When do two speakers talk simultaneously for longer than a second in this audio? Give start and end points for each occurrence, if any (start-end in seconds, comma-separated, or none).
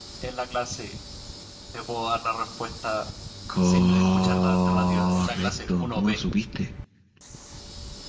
3.6-6.2